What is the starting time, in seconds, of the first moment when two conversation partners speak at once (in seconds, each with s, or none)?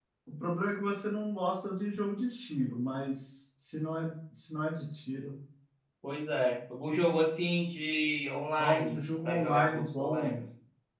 8.6 s